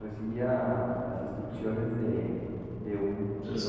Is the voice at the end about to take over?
No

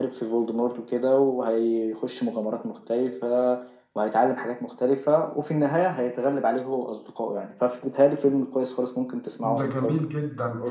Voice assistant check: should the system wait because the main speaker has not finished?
No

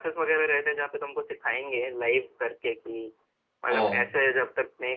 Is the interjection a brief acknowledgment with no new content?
Yes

